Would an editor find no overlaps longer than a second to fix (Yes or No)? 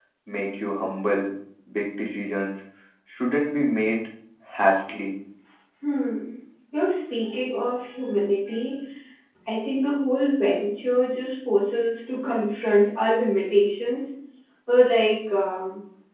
Yes